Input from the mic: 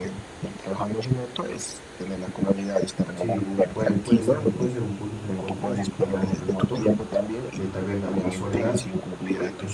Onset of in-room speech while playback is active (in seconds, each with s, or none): 3.1 s